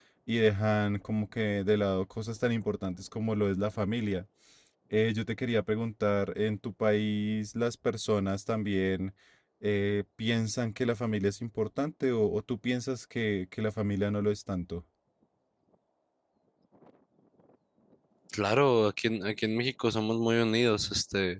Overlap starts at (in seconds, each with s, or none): none